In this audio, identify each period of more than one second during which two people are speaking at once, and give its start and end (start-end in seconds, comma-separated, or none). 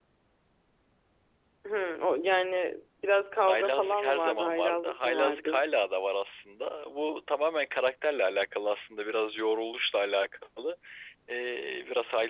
3.5-5.6